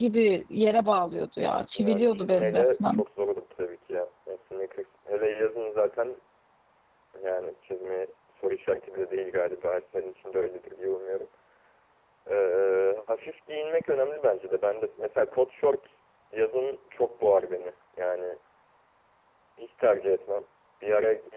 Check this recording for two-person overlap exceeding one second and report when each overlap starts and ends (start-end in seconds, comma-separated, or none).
1.8-3.0